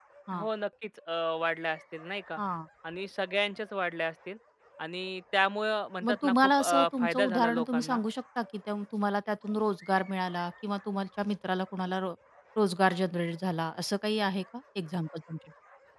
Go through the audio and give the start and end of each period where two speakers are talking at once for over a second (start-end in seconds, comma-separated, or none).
6.0-8.0